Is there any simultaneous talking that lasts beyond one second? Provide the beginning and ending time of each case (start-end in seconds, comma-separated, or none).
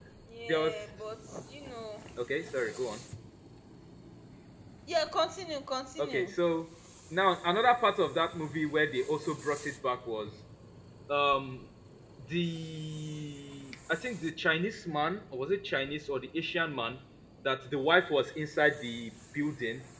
none